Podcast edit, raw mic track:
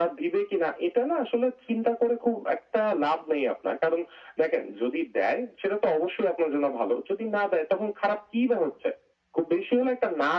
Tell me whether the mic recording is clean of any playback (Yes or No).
No